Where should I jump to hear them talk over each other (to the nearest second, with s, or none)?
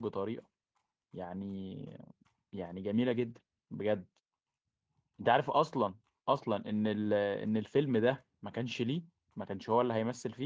none